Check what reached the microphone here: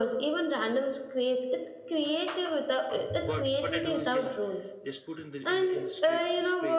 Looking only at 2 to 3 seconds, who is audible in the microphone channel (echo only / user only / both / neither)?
echo only